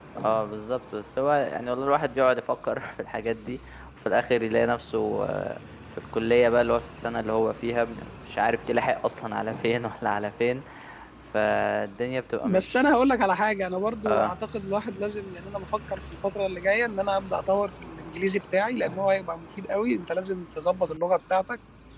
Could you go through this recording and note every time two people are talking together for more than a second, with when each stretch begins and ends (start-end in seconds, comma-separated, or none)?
none